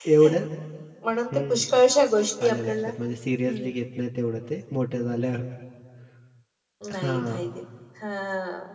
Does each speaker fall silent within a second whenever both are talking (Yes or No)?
Yes